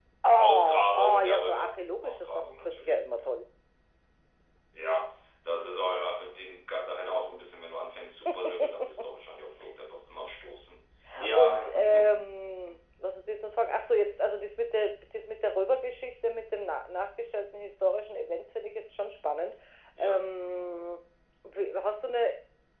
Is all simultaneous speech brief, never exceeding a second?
No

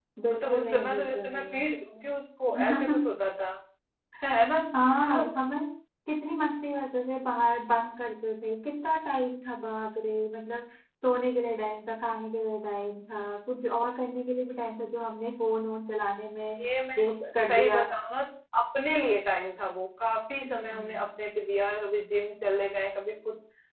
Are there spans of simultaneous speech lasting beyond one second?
Yes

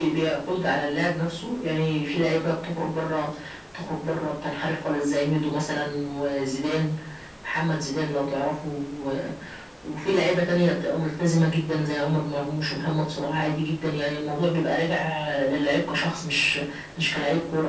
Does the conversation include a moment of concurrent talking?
No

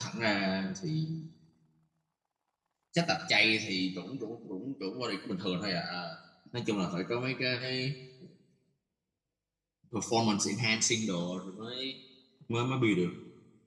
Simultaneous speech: No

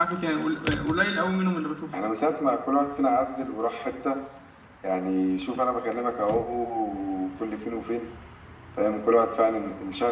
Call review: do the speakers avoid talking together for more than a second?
Yes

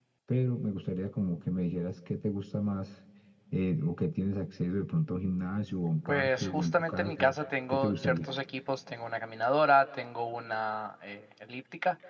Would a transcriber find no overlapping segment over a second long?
No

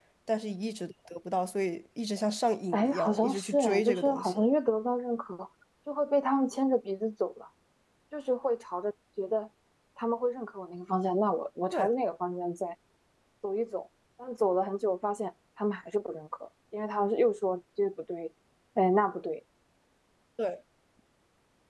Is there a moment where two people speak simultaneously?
Yes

